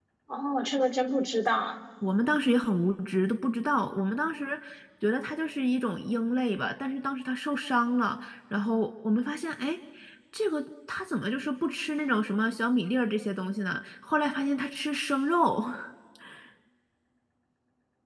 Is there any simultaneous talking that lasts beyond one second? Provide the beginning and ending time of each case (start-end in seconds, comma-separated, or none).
none